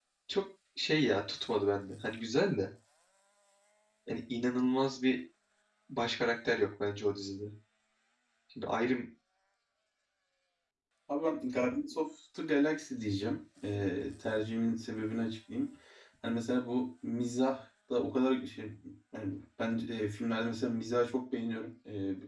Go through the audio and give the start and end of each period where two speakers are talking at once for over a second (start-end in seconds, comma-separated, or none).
none